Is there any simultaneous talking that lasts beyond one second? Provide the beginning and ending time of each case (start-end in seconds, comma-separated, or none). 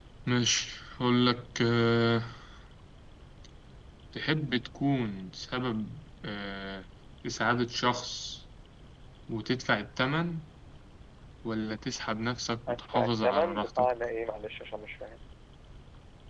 12.7-13.9